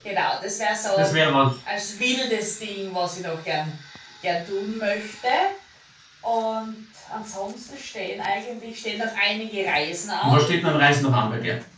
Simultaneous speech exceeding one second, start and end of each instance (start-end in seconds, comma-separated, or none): none